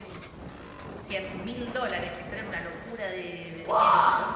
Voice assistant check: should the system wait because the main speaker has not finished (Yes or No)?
Yes